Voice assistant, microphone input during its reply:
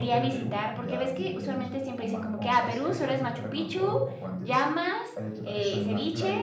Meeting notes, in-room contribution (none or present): present